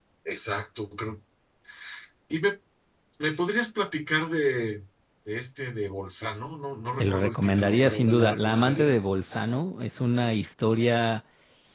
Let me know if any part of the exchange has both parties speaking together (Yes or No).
Yes